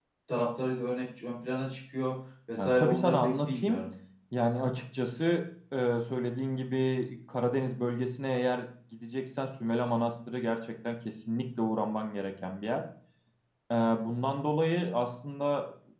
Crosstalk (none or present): present